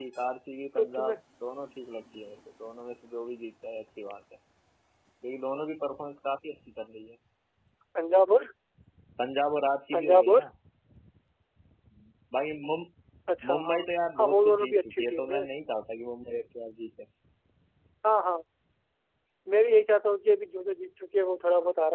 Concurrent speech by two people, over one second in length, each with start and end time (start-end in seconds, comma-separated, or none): 14.2-15.4